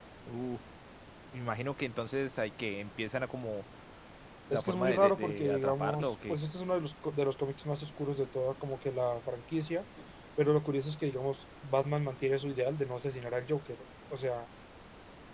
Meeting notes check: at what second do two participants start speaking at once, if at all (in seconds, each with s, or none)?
4.5 s